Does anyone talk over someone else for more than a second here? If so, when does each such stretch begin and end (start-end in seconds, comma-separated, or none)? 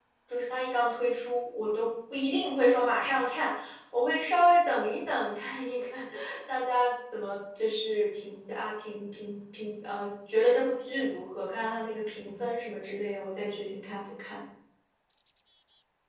none